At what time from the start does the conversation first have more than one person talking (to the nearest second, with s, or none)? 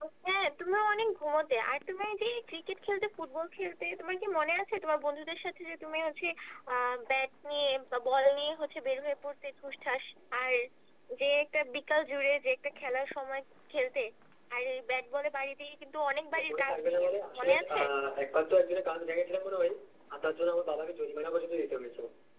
16 s